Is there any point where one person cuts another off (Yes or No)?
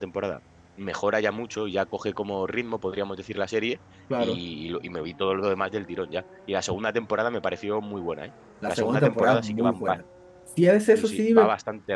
Yes